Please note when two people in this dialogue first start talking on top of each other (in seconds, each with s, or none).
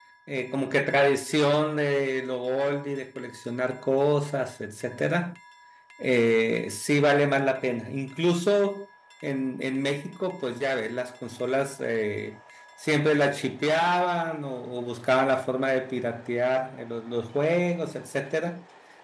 none